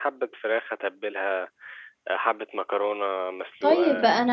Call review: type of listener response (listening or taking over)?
taking over